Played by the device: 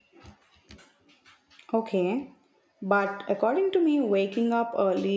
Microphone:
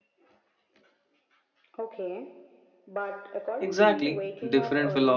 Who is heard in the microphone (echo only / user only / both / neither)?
both